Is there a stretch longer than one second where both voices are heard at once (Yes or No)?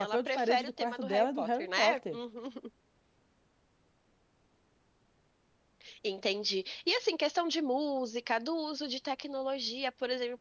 Yes